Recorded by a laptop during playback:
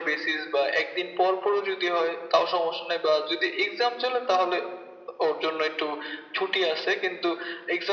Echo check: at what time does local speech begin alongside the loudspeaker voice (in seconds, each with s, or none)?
none